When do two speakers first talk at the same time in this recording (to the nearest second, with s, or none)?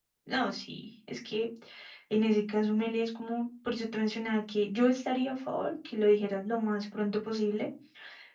none